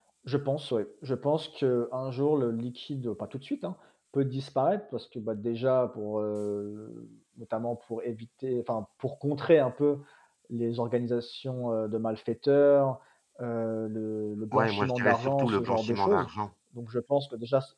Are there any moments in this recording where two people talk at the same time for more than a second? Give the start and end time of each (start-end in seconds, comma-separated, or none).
14.5-16.3